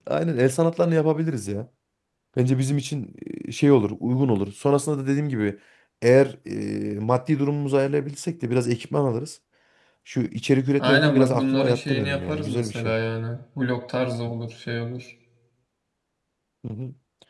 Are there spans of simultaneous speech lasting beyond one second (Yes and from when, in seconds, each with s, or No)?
Yes, from 10.8 s